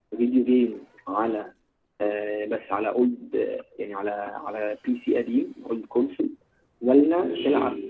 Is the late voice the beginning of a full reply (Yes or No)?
No